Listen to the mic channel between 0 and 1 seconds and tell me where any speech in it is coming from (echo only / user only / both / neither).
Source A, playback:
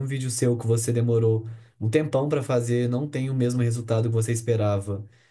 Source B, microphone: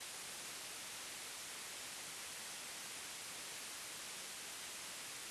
neither